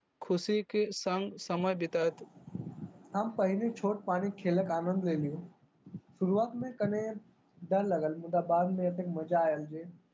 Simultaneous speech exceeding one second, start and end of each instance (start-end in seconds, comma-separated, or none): none